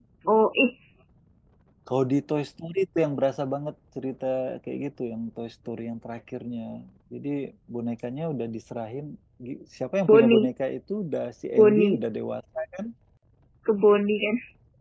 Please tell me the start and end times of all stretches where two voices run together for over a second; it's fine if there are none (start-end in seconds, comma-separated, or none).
none